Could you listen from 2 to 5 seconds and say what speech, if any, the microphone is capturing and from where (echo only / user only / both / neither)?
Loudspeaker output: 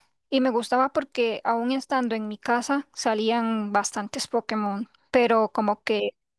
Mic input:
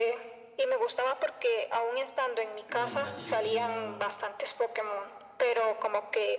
both